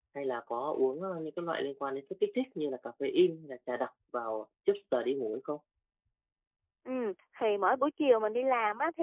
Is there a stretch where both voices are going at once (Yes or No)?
No